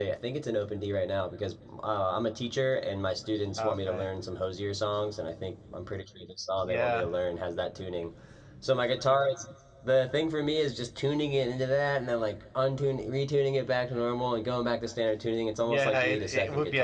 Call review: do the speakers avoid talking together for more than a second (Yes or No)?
No